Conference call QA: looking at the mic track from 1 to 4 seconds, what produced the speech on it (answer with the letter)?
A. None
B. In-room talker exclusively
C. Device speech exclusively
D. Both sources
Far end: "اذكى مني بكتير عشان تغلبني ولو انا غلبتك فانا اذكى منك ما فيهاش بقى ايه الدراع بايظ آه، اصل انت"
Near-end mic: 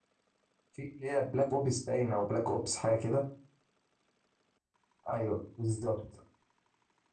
B